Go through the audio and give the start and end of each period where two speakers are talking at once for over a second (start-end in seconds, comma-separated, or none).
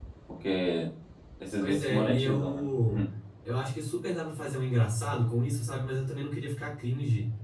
1.6-3.0